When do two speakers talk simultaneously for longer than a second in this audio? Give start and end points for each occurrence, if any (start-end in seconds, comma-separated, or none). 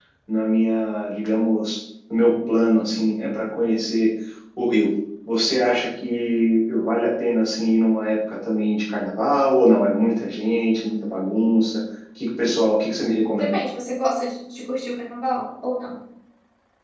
none